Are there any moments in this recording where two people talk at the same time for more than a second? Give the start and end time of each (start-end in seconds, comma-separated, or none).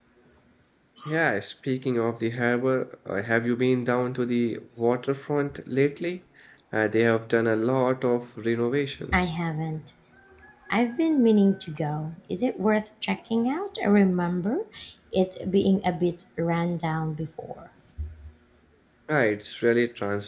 none